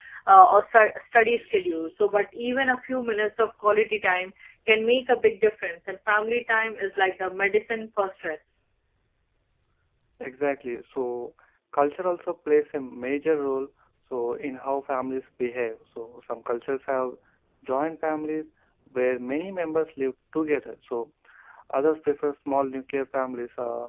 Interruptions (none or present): none